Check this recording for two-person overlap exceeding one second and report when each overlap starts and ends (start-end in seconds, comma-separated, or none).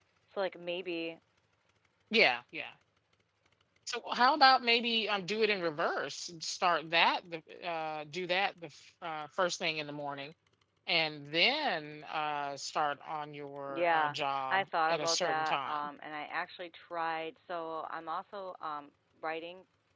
13.7-15.9